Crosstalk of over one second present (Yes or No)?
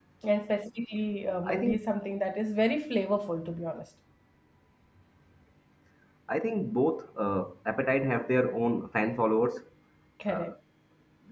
No